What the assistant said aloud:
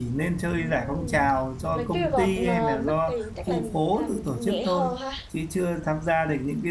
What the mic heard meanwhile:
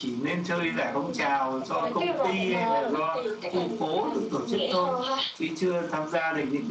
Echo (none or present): present